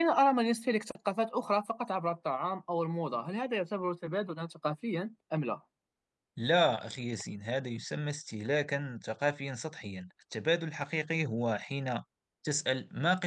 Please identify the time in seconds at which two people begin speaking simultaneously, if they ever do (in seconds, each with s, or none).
none